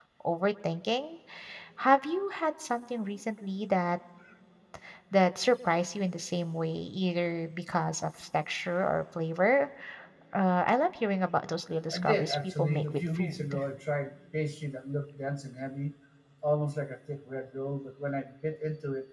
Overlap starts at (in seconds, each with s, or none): 11.9 s